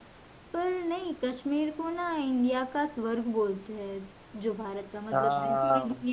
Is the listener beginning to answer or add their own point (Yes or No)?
No